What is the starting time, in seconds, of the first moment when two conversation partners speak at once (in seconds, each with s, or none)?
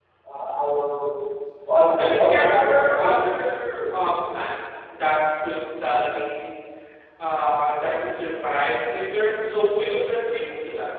2.0 s